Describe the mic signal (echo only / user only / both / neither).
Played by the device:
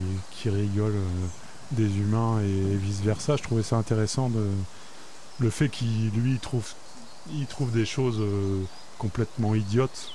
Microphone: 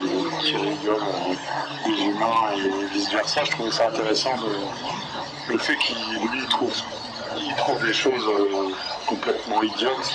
both